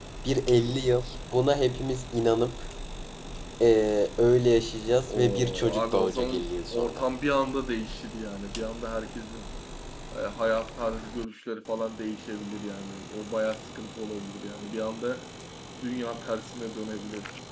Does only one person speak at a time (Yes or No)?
No